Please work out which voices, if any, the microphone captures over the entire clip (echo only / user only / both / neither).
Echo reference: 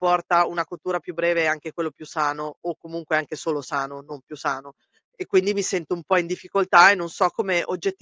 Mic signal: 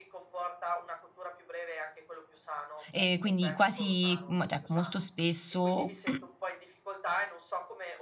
both